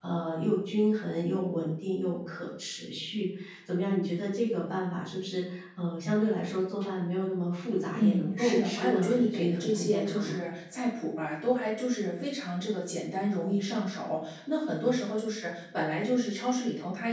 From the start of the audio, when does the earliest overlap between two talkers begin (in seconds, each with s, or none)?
7.9 s